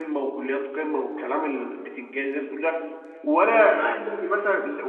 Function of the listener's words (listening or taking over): listening